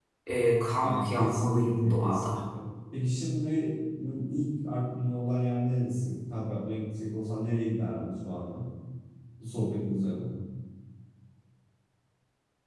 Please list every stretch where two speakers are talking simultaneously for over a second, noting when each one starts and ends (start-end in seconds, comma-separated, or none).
0.8-2.3